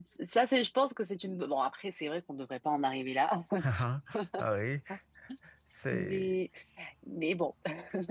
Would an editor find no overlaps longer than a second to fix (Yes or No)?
Yes